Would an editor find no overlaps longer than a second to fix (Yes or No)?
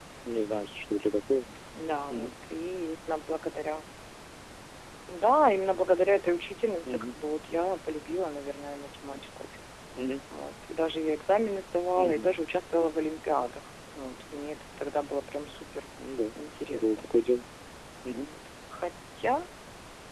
Yes